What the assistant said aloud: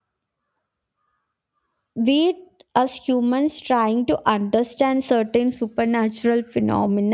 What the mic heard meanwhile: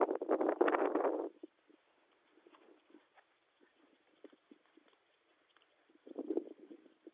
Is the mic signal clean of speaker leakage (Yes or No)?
Yes